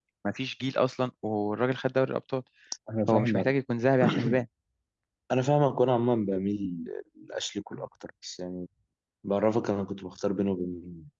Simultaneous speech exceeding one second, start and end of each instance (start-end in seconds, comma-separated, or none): none